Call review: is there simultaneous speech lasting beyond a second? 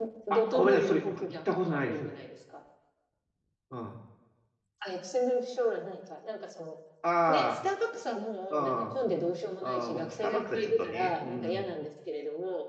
Yes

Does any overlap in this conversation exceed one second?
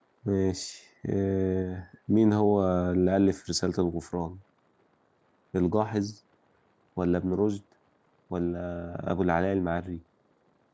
No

